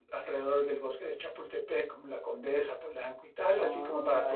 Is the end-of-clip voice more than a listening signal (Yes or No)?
Yes